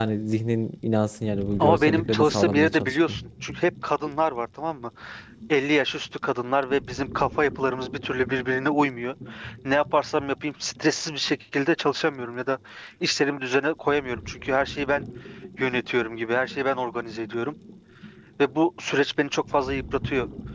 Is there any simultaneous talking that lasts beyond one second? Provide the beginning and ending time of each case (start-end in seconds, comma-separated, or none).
1.6-3.2